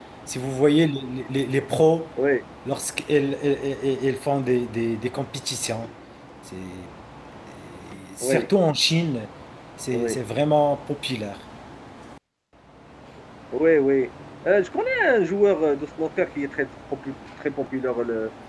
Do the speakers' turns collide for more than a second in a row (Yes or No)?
No